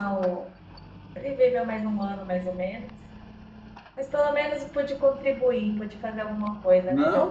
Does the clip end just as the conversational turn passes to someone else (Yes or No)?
Yes